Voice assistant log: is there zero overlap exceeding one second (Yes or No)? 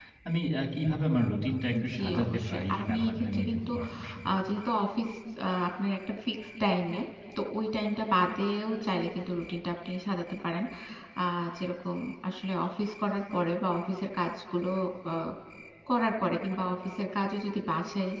No